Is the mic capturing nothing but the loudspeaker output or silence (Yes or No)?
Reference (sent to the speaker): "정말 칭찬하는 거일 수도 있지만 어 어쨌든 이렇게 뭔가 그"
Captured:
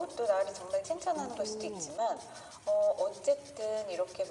No